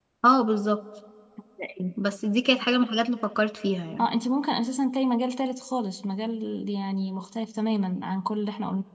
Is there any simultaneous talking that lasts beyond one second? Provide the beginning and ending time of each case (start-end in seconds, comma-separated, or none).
none